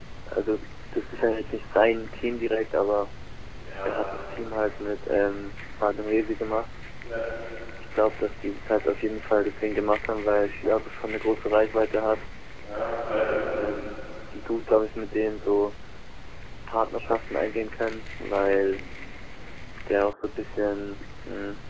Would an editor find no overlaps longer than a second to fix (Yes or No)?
Yes